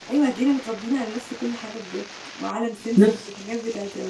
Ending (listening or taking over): listening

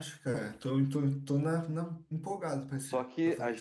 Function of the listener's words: taking over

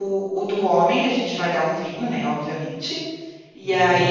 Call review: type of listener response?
listening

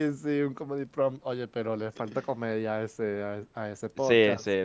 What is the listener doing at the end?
taking over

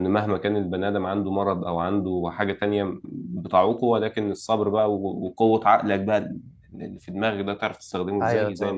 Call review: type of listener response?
listening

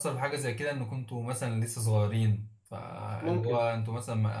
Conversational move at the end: listening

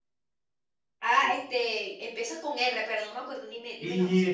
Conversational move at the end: taking over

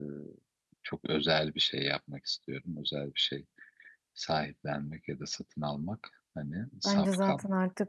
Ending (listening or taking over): taking over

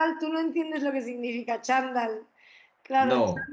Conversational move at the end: listening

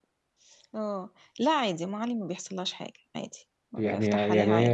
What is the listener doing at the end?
taking over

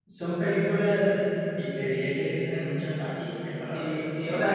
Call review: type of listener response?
taking over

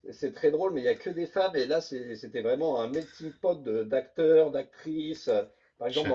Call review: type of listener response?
listening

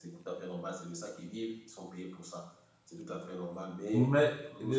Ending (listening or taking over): taking over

